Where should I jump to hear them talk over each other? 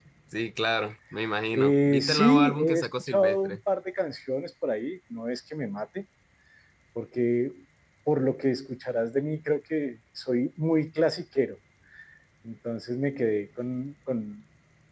1.5 s

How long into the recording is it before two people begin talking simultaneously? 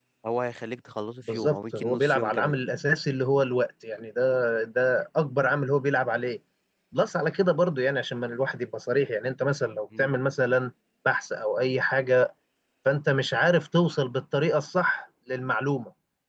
1.3 s

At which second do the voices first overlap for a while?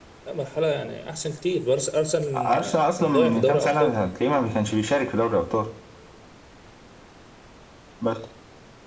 2.3 s

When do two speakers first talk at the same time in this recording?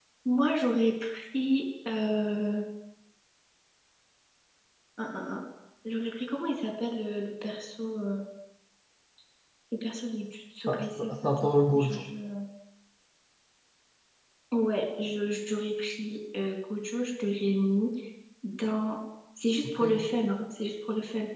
10.7 s

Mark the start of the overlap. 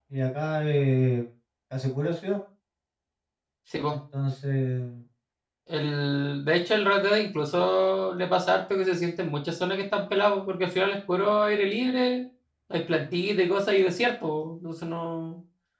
none

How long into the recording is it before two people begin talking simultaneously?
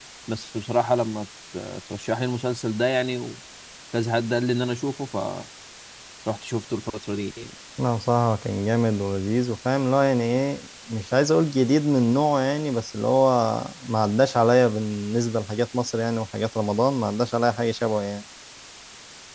none

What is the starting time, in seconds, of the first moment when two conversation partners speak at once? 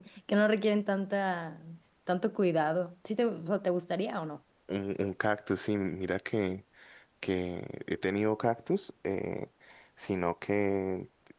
none

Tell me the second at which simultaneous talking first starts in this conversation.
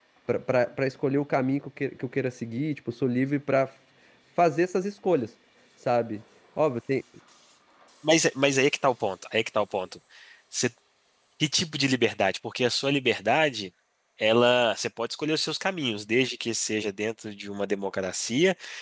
none

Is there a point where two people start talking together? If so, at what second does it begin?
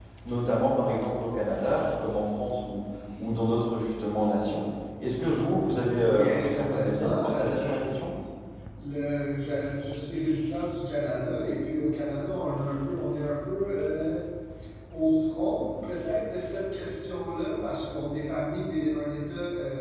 6.0 s

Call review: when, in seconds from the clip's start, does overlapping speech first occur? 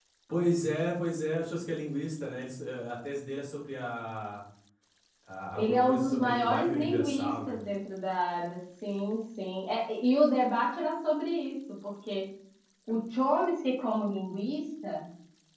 5.5 s

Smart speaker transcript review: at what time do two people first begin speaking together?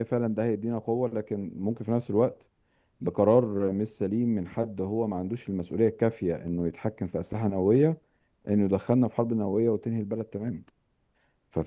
none

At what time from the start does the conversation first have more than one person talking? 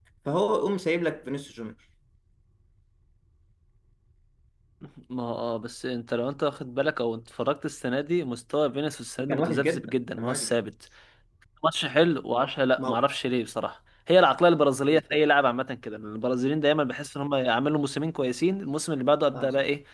9.3 s

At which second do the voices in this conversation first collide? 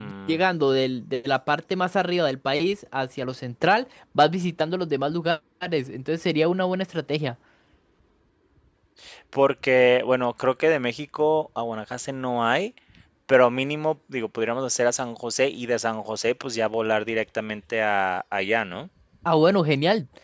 none

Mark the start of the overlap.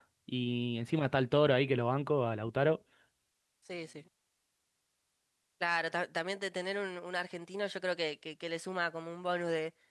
none

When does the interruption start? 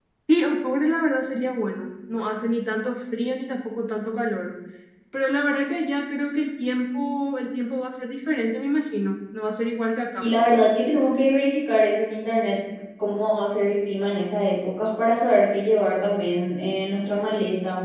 none

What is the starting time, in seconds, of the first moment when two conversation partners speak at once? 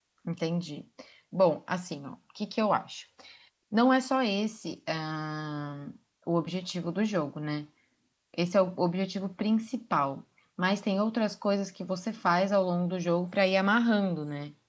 none

